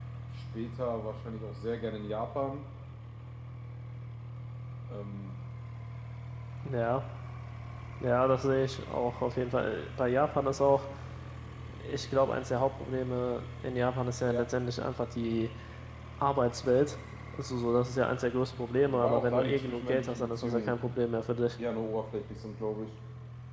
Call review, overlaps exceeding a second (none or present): present